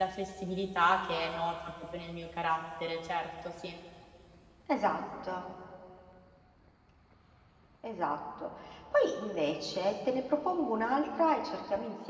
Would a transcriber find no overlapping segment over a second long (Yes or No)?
Yes